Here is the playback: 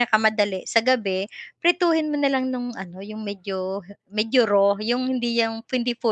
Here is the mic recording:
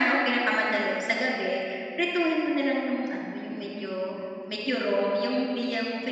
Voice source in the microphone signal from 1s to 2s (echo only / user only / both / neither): echo only